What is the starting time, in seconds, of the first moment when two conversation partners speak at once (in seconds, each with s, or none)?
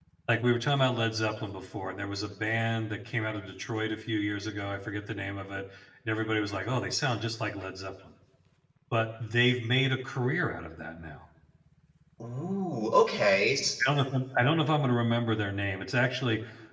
none